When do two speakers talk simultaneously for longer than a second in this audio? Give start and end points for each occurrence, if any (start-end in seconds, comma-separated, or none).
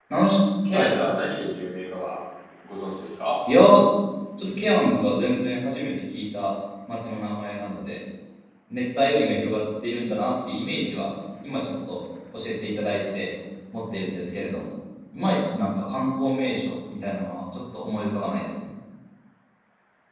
none